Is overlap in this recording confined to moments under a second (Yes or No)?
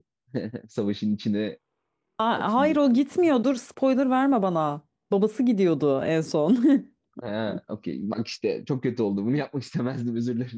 Yes